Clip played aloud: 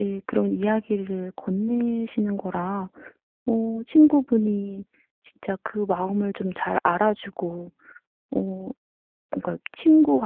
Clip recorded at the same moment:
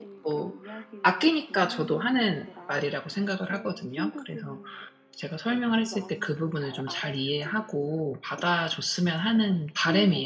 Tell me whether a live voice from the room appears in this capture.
Yes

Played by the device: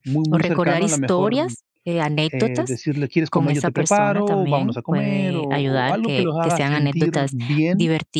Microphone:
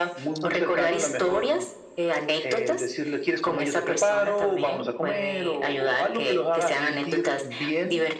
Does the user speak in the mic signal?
No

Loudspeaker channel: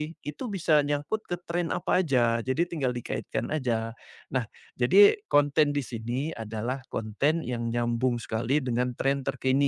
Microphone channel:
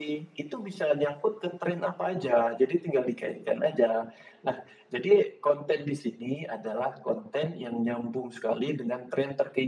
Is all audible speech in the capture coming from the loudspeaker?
Yes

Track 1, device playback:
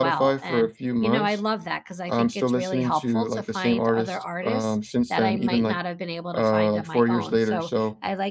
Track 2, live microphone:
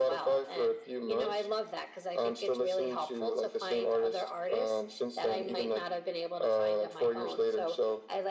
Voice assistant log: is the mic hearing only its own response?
Yes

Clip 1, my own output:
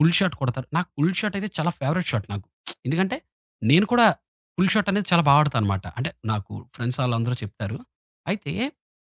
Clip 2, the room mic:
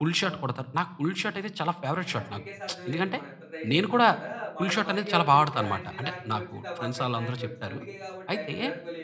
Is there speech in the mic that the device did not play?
Yes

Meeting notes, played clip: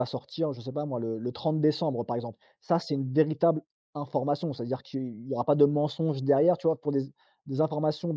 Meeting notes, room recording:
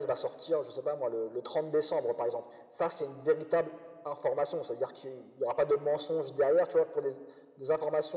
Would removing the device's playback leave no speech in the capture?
Yes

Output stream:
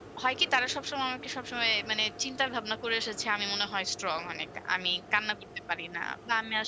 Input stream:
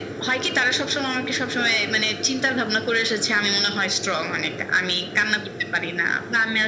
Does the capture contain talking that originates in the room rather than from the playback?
No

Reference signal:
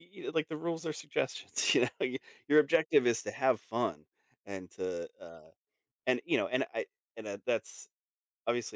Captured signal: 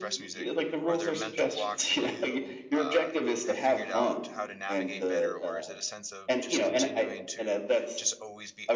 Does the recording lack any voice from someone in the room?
No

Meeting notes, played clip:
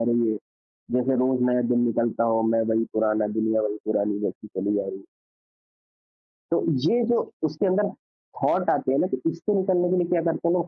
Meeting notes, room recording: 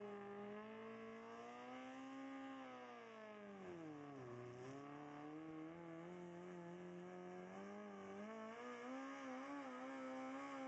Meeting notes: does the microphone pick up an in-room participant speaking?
No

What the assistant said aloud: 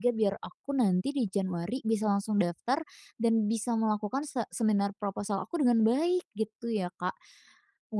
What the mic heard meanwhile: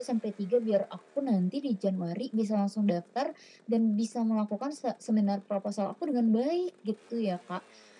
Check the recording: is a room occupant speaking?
No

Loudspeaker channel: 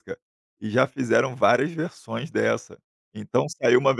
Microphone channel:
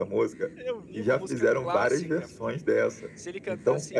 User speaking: Yes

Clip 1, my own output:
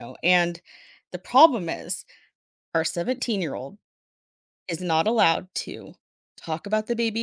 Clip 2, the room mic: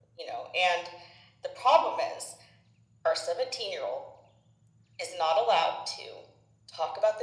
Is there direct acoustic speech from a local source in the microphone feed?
No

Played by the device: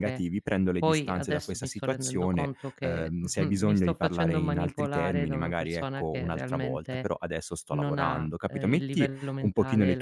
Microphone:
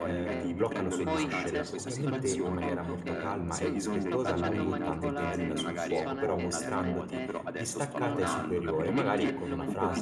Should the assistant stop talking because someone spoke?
Yes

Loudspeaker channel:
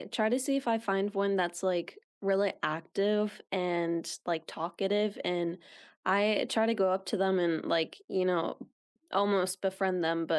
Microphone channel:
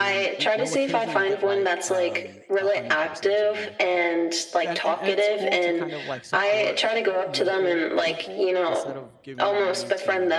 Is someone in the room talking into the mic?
Yes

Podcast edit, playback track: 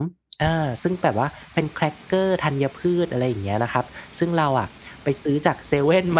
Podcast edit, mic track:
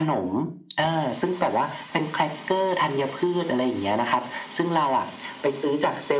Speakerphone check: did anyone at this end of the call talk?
No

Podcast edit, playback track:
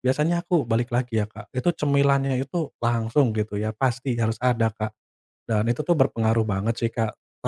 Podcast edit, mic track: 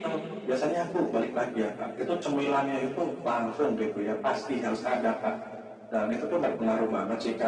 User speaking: No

